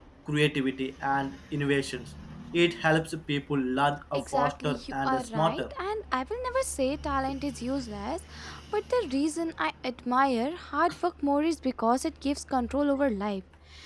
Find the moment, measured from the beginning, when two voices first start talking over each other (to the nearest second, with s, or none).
4 s